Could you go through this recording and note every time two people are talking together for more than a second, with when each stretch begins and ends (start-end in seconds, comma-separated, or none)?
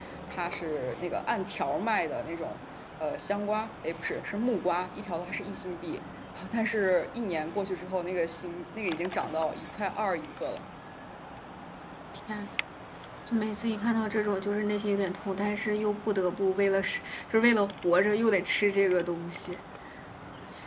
none